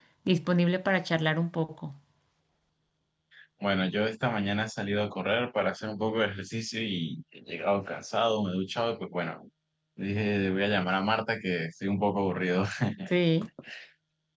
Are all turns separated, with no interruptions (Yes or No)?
Yes